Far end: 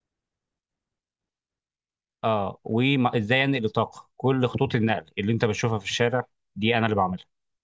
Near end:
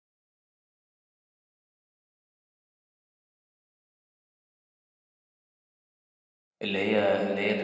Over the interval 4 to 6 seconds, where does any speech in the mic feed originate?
neither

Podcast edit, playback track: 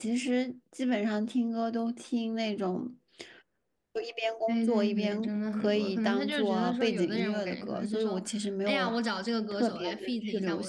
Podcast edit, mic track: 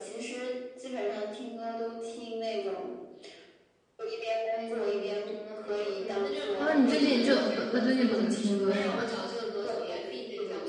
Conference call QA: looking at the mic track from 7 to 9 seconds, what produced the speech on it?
both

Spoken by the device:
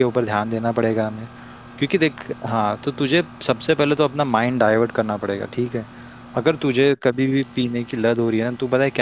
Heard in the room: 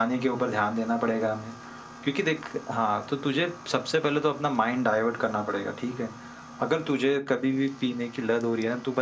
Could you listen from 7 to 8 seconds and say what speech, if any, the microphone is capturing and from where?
echo only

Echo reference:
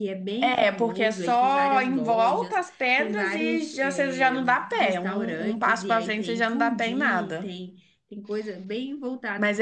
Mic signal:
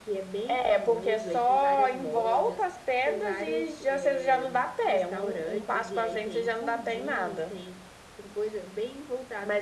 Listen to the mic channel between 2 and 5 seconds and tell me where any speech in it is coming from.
echo only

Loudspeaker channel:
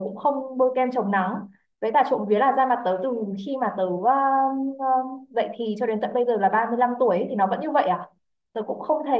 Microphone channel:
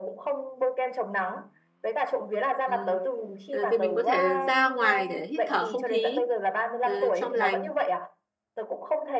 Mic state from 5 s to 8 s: both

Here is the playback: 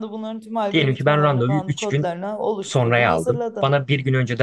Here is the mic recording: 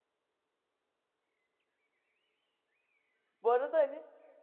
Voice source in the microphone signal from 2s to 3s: neither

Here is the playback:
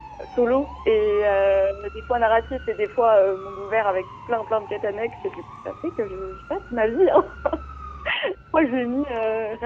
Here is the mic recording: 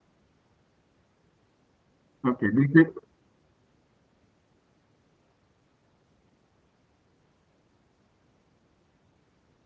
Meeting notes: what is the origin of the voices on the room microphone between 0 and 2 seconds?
neither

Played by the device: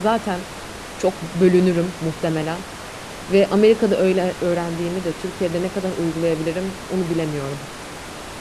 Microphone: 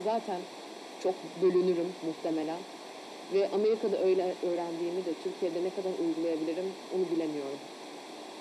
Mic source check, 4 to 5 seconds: echo only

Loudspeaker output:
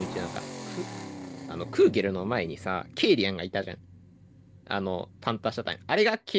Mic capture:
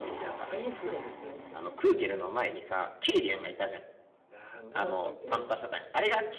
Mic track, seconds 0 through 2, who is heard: both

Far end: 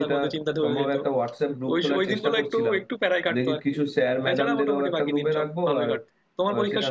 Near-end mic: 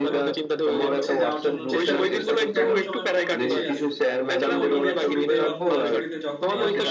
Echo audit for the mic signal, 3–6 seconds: both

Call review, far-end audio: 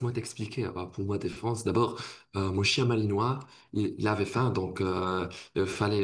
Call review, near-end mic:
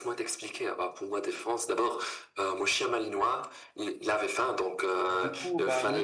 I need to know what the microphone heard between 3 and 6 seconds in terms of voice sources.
both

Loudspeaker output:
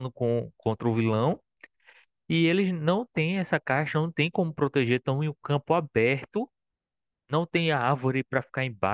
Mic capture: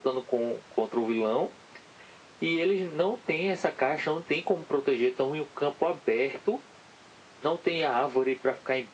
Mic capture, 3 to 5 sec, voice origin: echo only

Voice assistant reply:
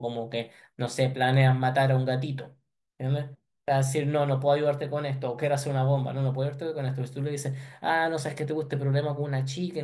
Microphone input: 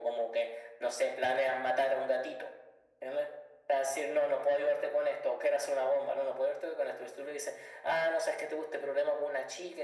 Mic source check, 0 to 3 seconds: echo only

